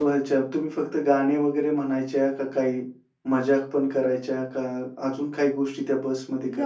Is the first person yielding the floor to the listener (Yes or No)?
Yes